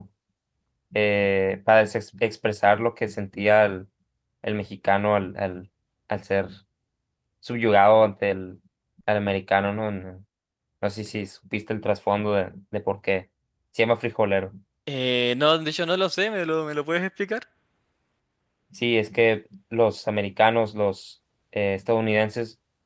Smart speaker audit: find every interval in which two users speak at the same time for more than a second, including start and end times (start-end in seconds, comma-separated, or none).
none